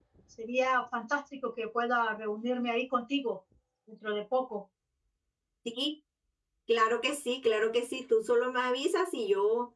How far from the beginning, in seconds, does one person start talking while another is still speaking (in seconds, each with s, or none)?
none